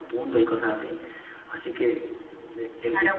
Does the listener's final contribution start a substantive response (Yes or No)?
Yes